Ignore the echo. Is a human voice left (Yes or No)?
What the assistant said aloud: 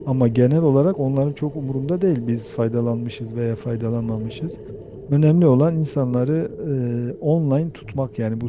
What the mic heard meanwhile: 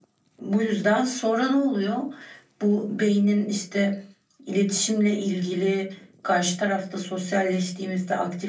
Yes